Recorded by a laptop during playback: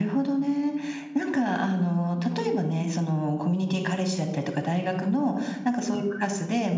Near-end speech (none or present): none